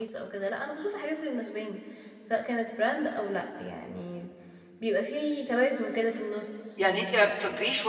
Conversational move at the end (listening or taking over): taking over